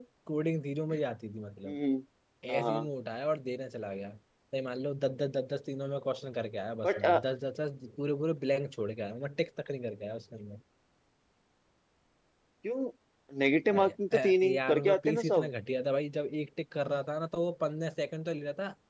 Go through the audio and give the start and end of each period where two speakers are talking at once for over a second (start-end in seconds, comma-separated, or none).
13.7-15.5